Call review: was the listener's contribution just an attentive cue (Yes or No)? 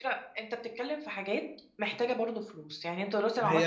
No